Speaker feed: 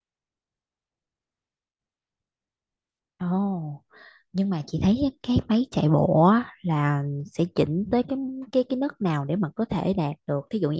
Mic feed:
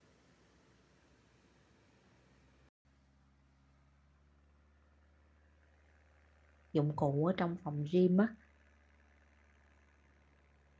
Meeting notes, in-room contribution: present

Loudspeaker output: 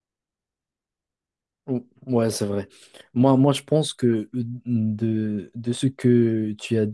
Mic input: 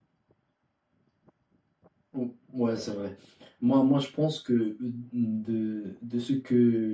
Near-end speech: none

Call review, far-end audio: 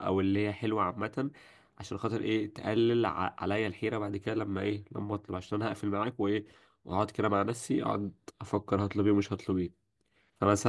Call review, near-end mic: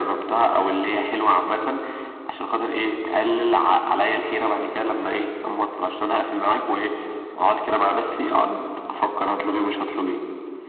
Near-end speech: none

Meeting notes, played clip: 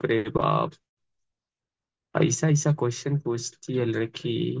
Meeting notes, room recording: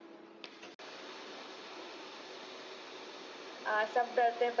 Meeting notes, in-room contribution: present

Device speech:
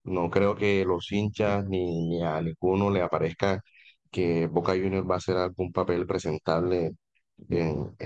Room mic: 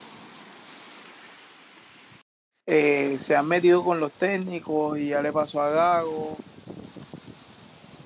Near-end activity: present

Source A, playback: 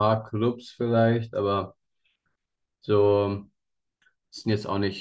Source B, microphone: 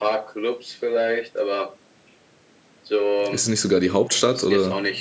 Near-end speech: present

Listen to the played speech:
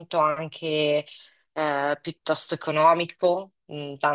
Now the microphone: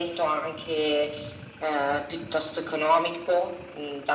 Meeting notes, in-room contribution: none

